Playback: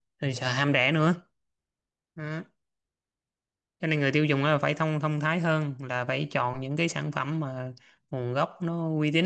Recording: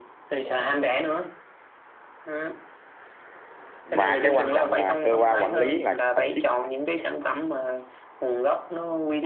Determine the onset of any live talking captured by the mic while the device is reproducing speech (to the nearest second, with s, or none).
4 s